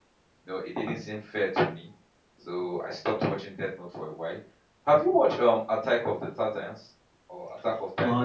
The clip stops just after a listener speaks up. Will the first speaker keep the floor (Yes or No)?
No